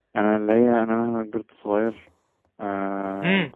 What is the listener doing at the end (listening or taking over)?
taking over